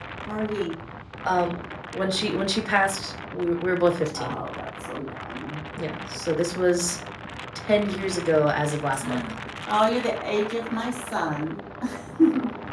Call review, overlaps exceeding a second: none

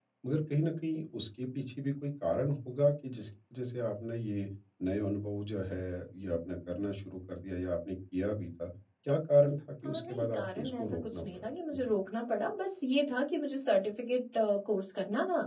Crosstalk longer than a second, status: present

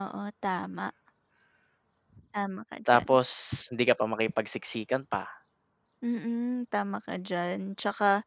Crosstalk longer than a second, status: none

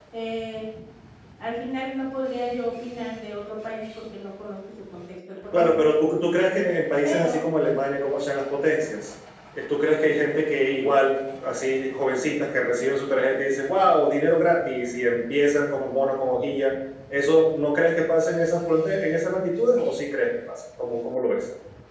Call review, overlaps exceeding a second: none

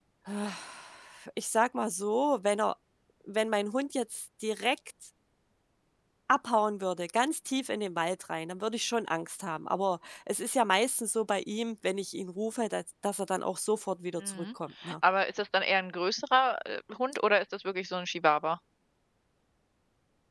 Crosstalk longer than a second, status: none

